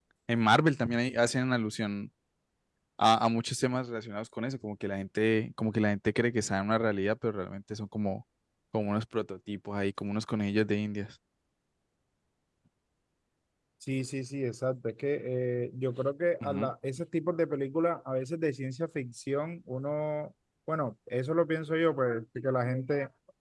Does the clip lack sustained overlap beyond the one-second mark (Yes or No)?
Yes